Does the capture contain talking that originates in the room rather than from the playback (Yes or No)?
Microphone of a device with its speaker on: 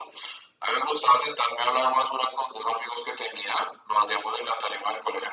No